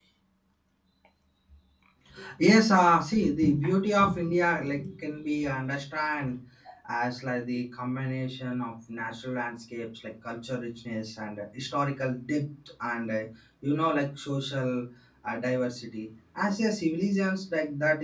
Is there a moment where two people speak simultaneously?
No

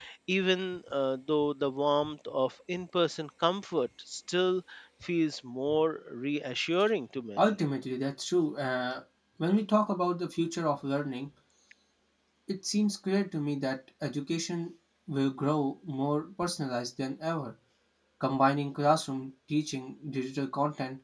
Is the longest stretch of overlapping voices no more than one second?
Yes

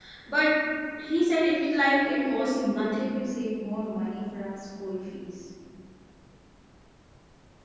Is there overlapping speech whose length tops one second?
Yes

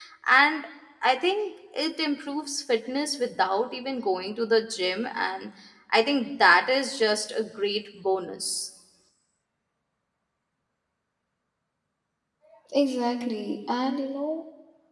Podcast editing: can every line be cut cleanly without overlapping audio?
Yes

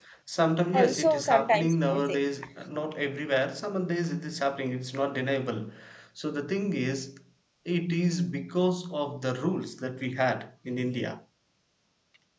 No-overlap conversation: No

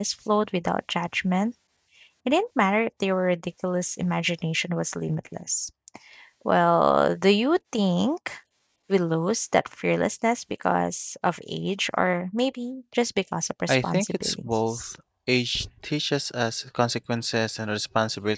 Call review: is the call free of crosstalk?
No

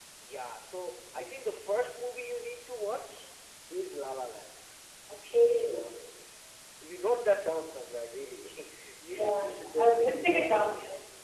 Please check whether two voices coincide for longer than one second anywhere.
Yes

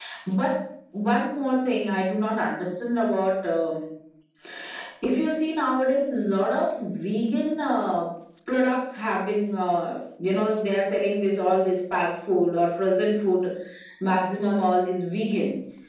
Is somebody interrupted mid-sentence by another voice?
No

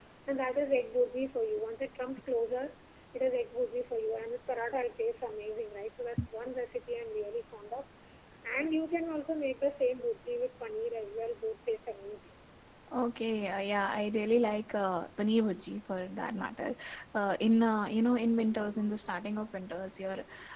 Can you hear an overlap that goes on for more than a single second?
No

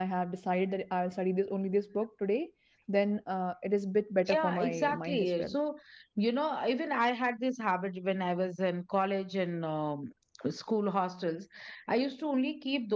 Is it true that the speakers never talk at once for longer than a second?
No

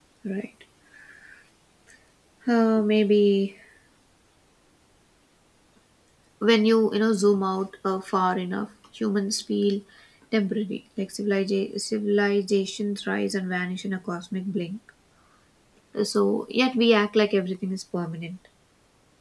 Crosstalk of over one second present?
No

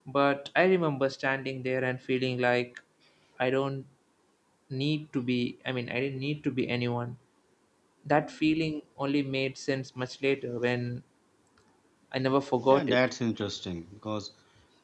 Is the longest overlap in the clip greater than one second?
No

